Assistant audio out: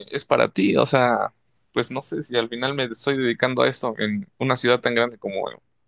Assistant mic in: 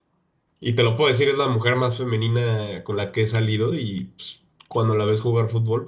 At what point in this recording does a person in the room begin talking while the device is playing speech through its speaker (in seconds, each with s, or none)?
0.6 s